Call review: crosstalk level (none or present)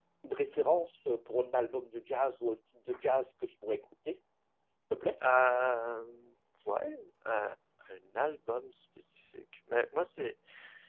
none